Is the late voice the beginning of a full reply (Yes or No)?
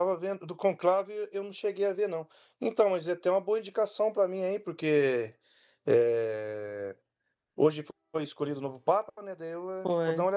No